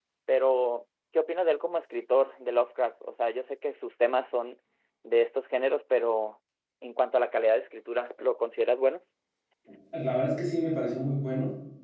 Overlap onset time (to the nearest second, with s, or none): none